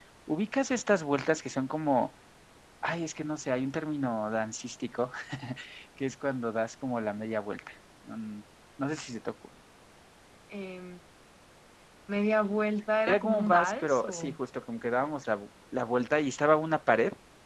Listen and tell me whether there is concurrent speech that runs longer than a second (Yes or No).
Yes